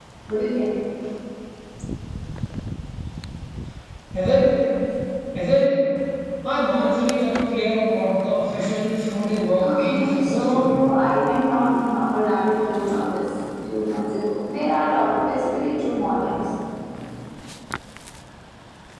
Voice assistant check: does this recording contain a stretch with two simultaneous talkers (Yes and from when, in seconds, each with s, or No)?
Yes, from 9.6 s